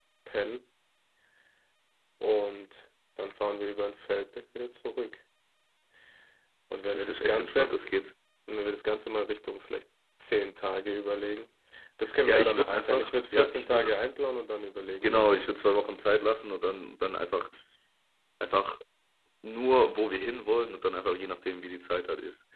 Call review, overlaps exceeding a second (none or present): present